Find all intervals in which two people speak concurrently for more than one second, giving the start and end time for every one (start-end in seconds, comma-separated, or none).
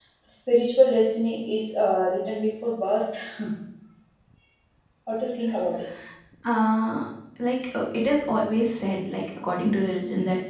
none